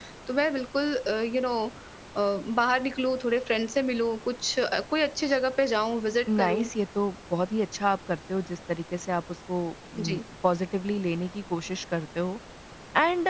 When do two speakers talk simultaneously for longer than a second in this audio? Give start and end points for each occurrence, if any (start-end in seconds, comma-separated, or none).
none